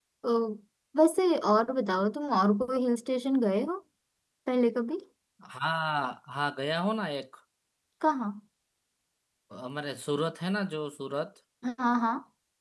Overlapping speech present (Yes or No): No